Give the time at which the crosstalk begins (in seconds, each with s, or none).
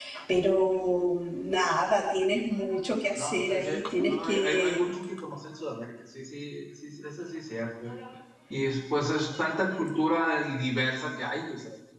3.1 s